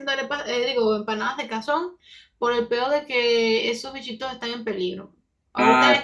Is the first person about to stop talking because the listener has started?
No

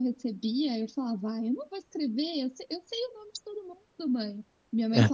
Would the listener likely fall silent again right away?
Yes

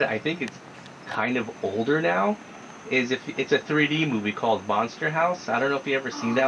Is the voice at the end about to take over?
Yes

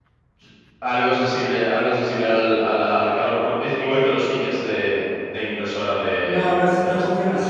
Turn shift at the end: Yes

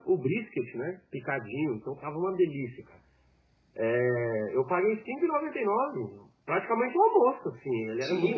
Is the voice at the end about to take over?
Yes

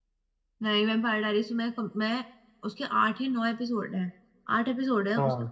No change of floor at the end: Yes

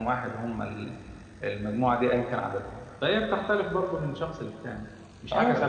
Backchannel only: No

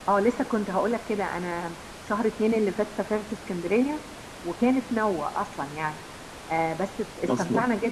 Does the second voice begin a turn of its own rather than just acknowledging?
No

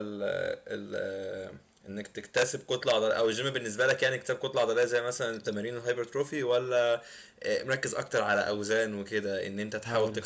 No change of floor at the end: Yes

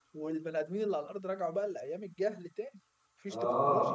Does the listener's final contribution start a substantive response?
Yes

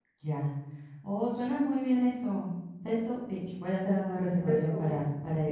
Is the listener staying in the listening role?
No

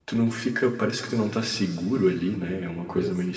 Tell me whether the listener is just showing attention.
Yes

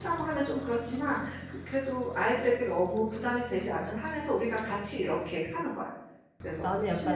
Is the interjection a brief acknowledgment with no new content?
No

